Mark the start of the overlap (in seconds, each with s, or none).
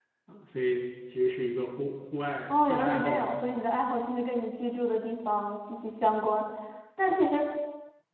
2.5 s